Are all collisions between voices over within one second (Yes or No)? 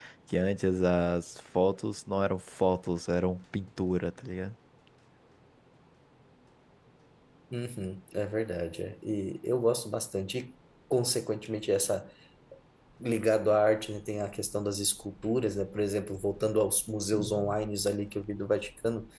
Yes